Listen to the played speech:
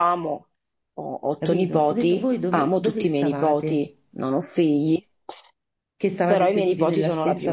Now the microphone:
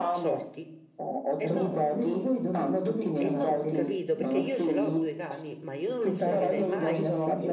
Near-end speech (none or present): present